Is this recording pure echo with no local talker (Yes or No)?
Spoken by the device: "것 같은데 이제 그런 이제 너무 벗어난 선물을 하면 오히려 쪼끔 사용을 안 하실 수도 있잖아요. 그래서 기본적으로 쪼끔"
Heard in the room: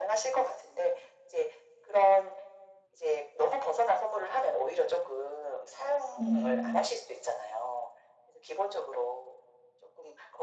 No